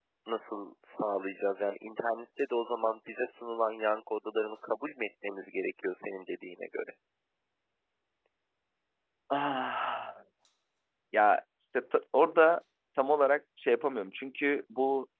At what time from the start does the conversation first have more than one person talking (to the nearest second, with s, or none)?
none